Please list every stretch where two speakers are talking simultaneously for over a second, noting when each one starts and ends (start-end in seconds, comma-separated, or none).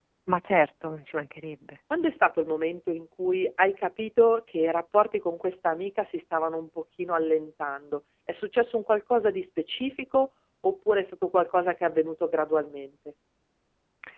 none